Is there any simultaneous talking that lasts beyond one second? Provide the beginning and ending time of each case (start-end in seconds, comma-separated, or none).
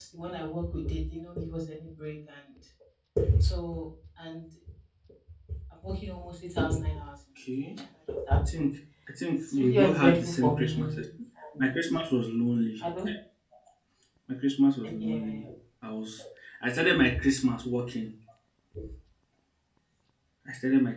9.6-11.0